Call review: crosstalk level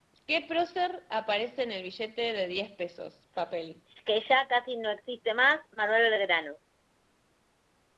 none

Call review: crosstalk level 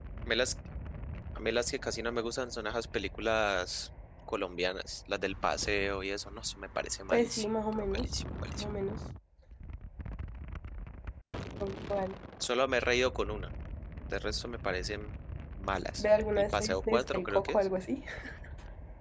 present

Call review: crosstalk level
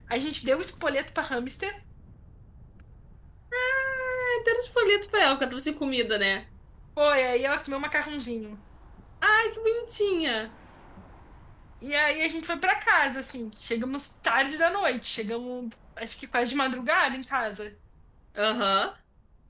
none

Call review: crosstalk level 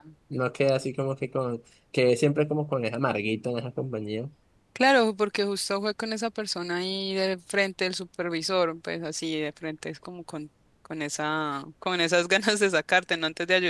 none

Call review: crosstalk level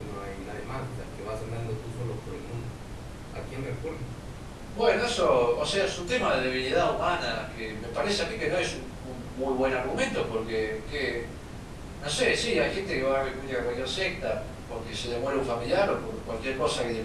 none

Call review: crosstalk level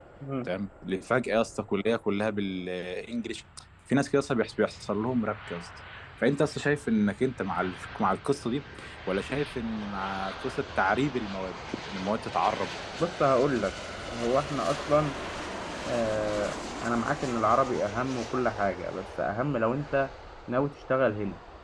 none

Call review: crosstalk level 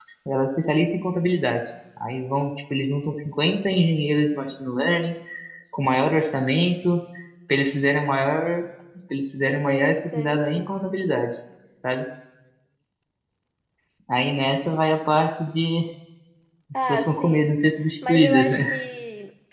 present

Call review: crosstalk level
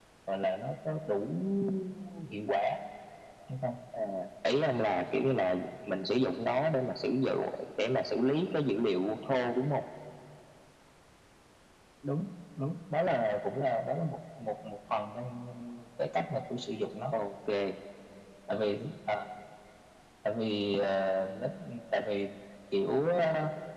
none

